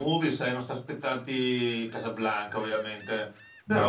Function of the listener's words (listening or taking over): listening